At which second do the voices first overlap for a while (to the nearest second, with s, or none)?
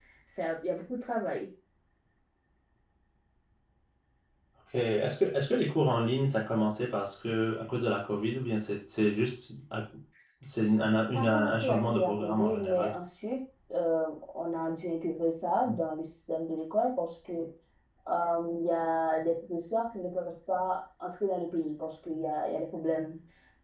11 s